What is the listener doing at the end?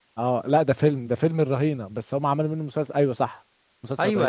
taking over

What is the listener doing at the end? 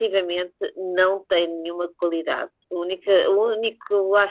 listening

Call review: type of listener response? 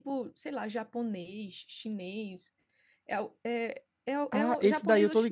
taking over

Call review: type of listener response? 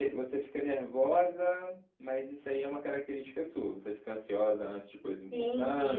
taking over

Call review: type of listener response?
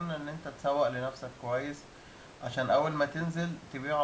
listening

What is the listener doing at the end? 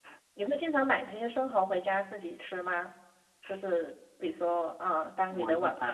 taking over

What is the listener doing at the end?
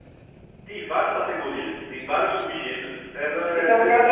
taking over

